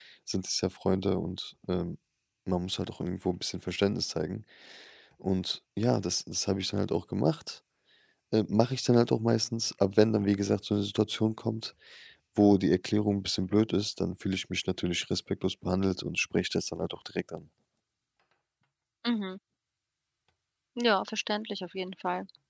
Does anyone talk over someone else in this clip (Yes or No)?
No